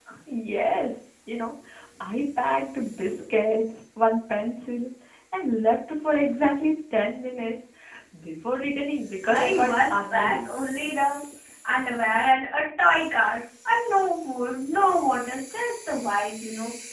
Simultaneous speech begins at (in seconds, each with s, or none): 9.2 s